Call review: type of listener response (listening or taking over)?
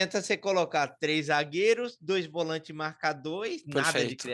taking over